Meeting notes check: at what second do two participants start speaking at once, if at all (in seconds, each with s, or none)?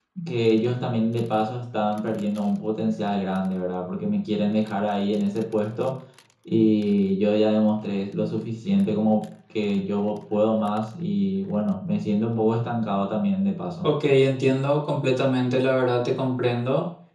none